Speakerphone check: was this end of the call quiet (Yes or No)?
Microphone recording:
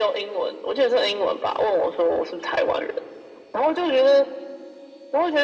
Yes